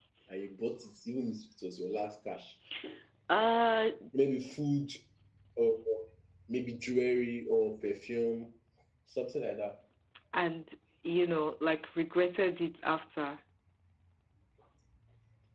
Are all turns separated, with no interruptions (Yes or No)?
Yes